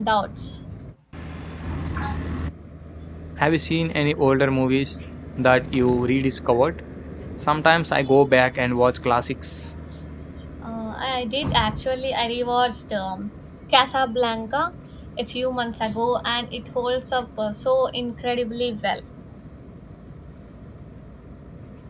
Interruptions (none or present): none